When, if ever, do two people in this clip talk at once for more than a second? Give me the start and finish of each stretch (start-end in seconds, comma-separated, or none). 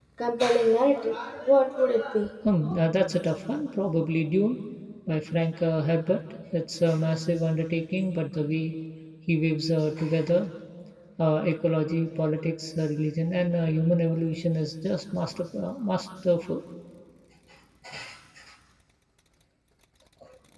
none